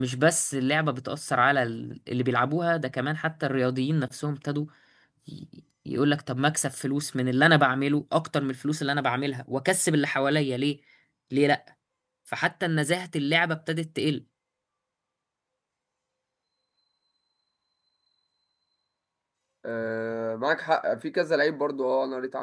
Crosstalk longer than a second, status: none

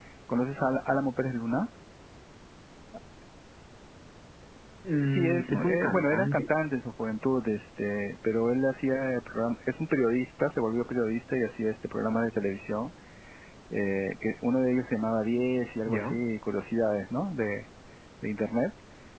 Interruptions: present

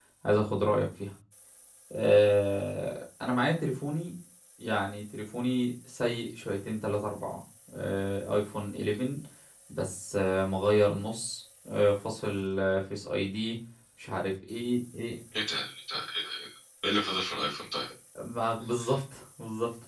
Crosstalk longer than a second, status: none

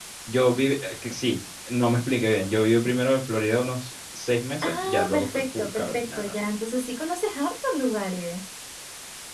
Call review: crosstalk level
present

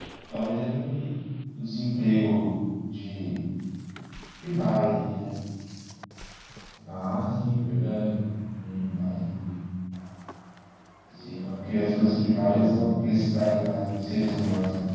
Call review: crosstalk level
present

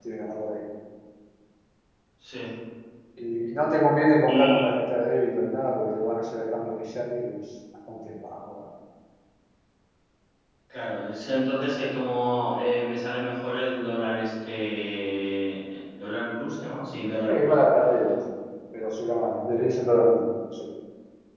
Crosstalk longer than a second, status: none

